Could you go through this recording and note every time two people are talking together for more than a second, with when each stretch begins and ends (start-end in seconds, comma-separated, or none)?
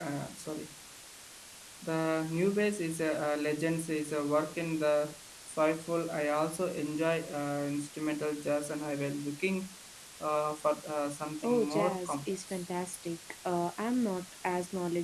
11.4-12.6